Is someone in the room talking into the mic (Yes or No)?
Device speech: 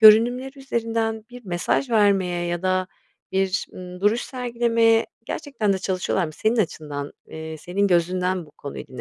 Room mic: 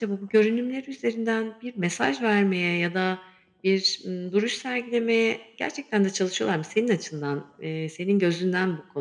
No